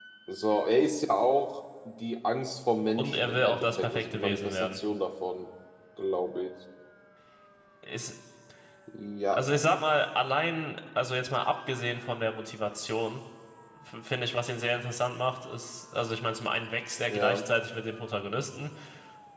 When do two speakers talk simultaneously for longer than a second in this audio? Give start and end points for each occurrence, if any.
3.0-4.8

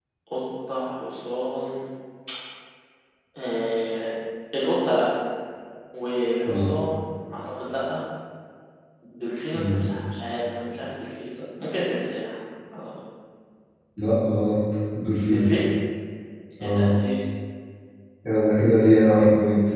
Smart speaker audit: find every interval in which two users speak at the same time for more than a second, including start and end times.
none

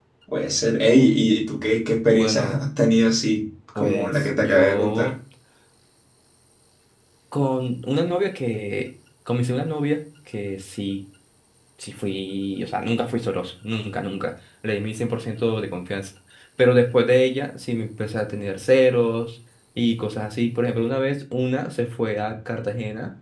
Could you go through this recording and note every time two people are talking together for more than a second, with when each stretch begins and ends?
3.8-5.1

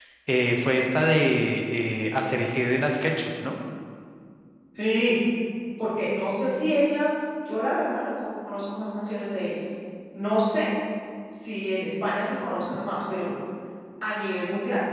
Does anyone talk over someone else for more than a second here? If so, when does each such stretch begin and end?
none

